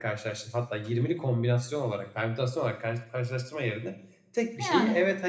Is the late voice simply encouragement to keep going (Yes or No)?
Yes